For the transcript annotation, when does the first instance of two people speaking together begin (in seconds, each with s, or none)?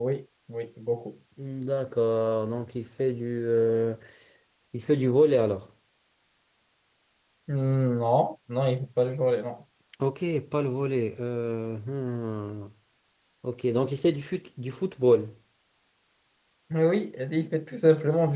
none